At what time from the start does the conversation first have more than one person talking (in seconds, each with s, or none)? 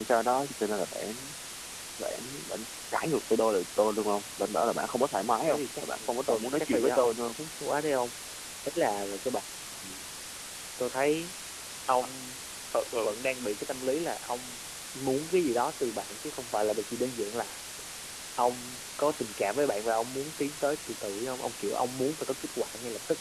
5.4 s